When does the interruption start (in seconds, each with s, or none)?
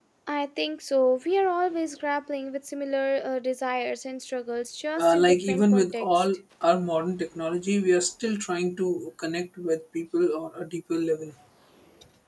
5.0 s